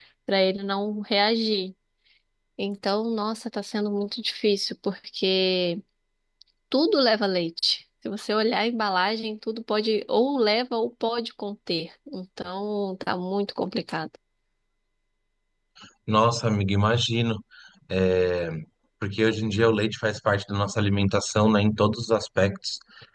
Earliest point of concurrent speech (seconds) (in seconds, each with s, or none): none